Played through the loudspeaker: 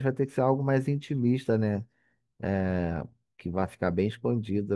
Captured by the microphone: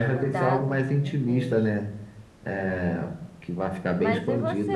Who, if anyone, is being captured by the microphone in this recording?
both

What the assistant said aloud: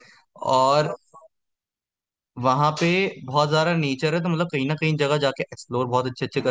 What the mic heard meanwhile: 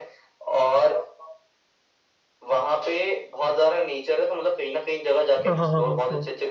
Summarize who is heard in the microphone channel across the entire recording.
both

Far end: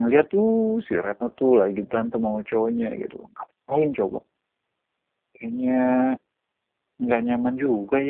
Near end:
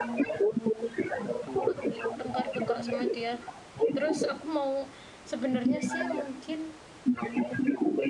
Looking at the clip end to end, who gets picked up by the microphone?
both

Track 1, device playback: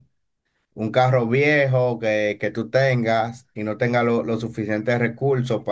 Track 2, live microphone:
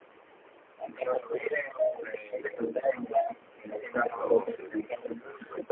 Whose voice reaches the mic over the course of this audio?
both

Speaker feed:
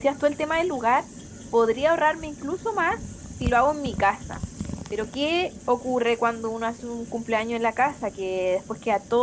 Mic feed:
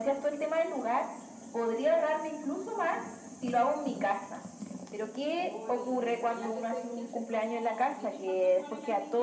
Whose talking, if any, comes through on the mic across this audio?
both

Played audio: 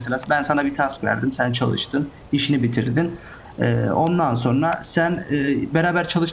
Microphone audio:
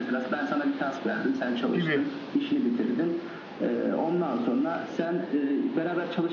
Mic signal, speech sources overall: both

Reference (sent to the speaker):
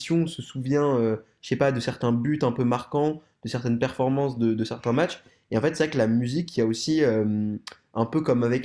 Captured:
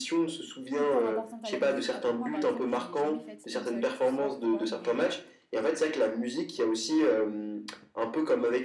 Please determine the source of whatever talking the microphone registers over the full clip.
both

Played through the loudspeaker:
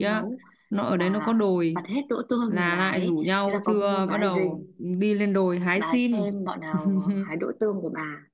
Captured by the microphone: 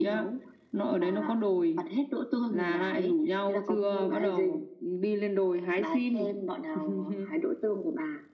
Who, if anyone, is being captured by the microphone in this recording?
both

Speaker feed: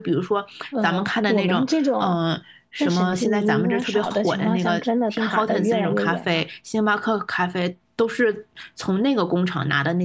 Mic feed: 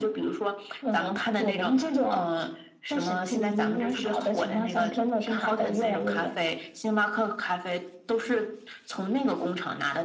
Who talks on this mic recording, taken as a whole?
echo only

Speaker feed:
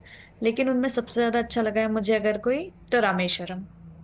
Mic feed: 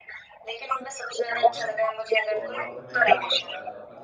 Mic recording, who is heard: both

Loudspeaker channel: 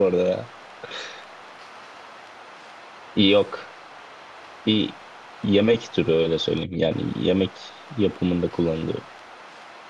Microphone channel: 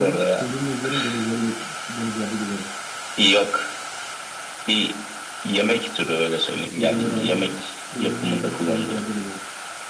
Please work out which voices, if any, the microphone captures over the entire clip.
both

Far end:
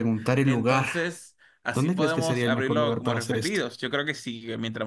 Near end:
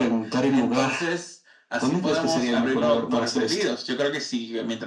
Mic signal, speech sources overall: echo only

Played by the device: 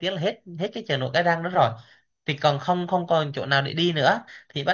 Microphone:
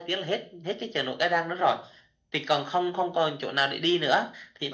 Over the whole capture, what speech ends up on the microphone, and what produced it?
echo only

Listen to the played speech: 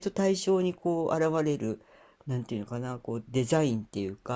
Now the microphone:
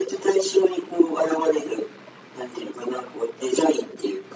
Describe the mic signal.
echo only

